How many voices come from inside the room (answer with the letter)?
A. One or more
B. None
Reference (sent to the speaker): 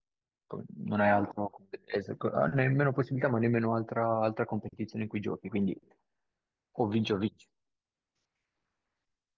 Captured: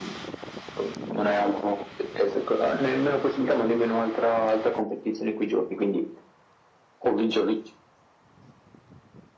B